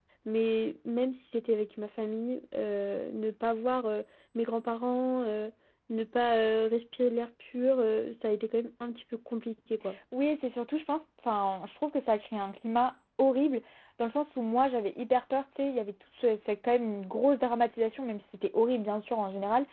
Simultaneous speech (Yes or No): No